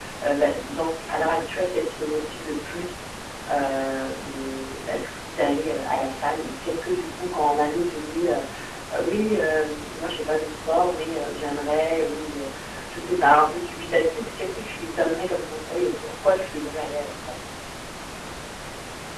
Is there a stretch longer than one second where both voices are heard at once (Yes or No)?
No